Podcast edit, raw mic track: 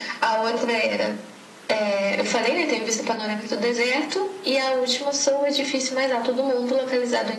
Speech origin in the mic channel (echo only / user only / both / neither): echo only